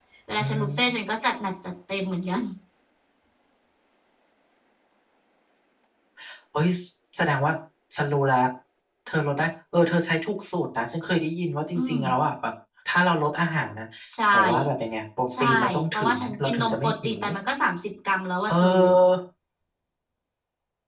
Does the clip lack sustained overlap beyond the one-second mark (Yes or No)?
No